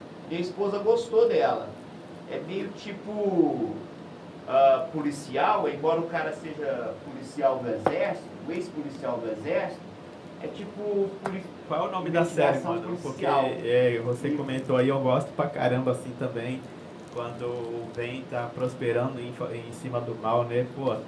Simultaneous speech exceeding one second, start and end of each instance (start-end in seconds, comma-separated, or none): 12.0-13.6